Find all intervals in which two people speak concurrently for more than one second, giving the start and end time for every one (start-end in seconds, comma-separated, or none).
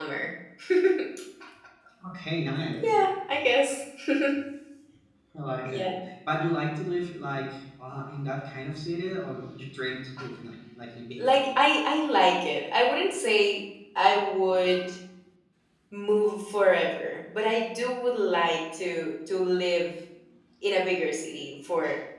none